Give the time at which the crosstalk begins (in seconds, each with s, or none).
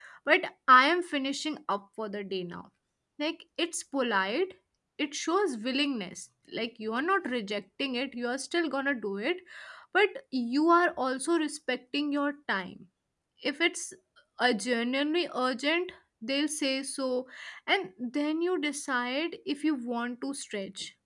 none